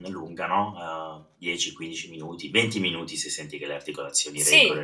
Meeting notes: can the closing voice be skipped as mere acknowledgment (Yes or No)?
No